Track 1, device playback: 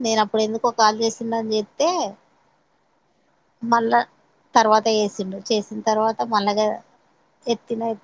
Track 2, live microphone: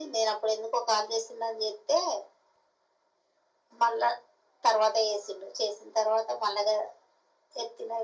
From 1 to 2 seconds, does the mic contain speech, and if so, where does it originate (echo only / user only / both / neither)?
echo only